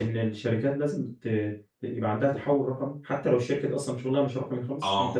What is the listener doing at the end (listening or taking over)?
taking over